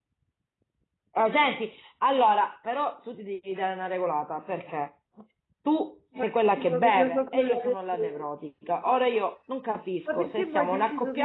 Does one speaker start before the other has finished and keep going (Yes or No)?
Yes